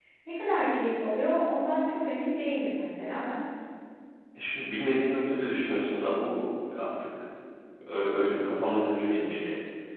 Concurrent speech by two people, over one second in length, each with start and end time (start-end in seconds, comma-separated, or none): none